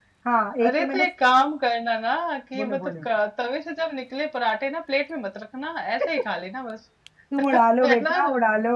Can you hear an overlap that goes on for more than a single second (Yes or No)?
No